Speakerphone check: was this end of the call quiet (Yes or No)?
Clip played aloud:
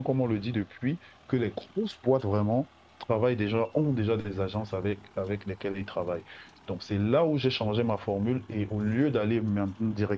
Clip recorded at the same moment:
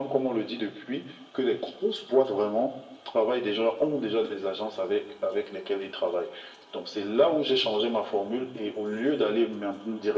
Yes